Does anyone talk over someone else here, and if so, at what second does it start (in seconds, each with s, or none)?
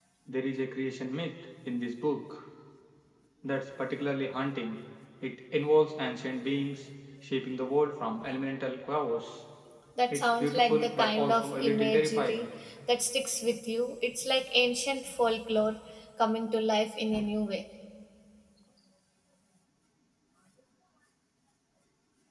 10.1 s